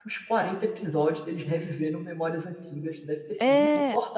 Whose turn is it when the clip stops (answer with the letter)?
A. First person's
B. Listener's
B